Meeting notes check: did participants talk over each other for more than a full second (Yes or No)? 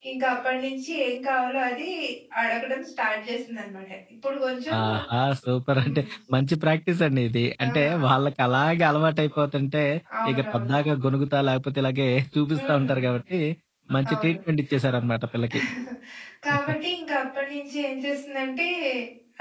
No